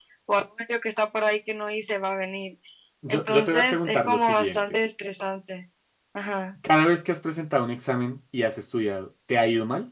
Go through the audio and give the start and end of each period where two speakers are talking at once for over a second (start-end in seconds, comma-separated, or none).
3.1-4.8